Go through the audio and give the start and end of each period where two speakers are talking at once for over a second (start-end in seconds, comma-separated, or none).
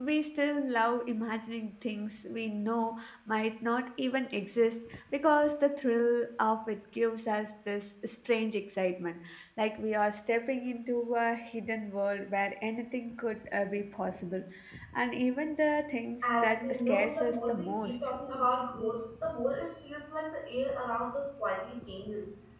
16.4-17.9